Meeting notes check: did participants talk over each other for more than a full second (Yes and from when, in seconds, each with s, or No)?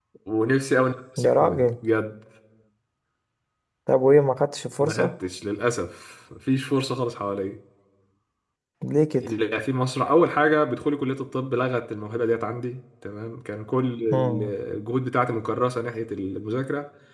No